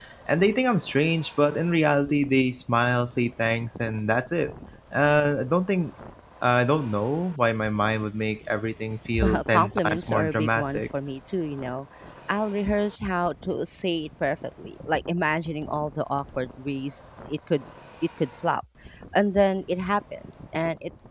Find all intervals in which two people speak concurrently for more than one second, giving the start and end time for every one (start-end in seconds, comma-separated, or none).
9.2-10.8